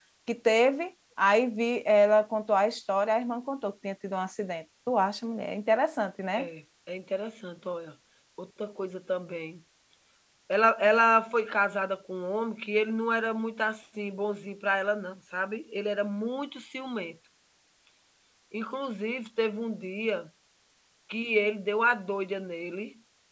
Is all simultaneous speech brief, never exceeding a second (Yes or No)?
Yes